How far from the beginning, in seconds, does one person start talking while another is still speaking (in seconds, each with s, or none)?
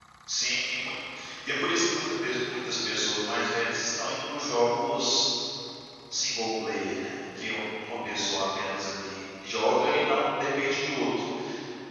none